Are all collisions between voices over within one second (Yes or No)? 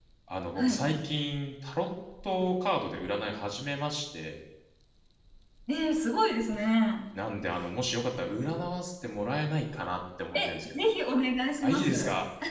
Yes